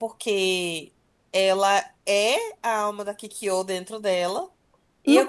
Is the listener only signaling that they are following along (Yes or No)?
No